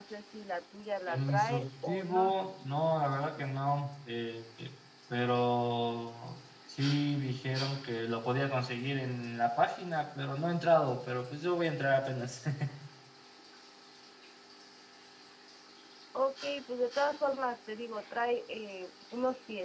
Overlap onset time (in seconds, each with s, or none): 1.1 s